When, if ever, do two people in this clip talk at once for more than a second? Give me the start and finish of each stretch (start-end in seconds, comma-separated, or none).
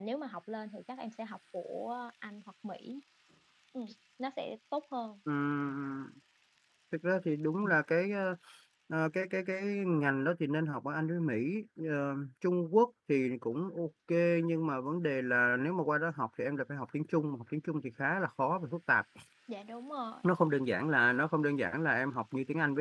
none